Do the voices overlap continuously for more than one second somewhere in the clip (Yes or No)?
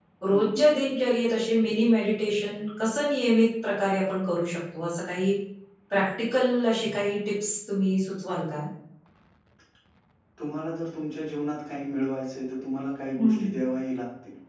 No